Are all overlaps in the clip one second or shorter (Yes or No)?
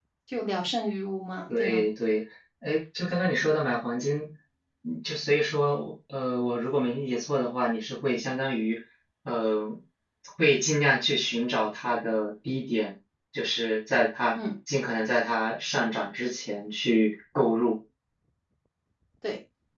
Yes